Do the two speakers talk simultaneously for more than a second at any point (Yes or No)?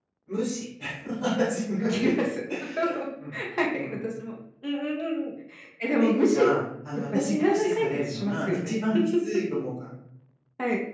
Yes